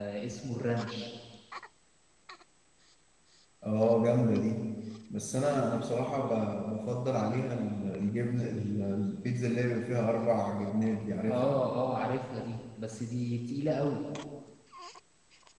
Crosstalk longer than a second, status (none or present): none